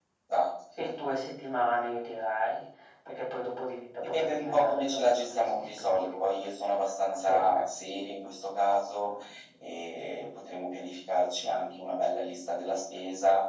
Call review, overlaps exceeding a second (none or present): present